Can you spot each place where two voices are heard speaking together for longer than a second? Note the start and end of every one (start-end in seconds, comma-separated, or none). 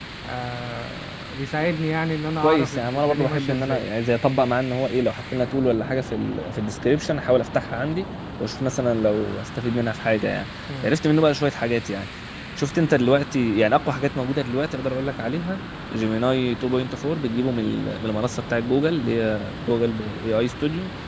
2.4-3.8